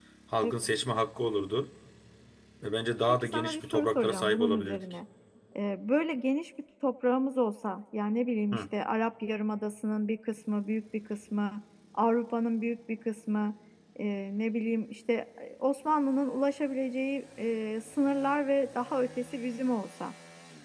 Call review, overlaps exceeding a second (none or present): present